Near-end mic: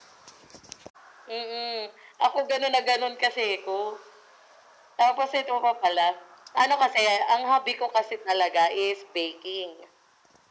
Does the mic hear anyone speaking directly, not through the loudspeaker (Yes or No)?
No